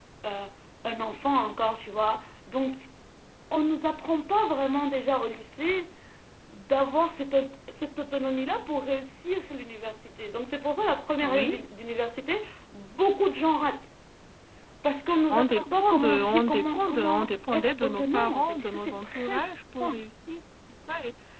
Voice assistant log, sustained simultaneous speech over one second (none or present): present